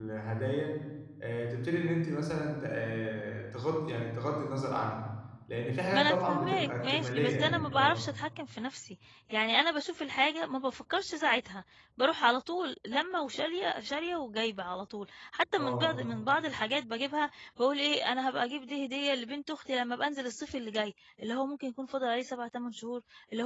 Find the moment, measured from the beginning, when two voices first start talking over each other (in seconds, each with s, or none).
5.9 s